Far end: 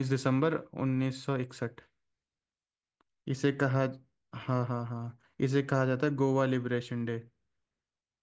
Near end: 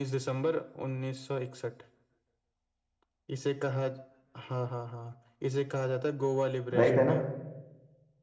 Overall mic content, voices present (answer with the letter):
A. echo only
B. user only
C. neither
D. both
D